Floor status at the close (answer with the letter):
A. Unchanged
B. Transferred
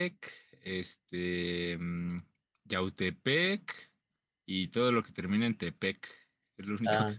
B